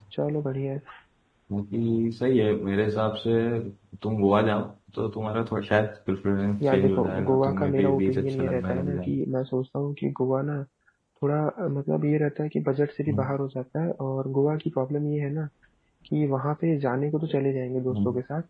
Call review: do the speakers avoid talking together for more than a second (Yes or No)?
No